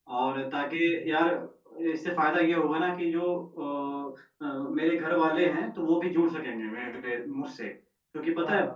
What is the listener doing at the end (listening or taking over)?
listening